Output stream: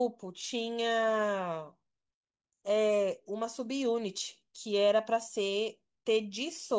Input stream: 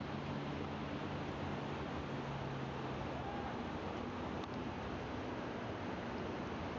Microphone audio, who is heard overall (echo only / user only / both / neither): neither